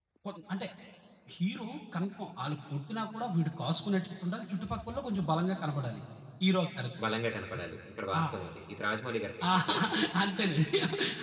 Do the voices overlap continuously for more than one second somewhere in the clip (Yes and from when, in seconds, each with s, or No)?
No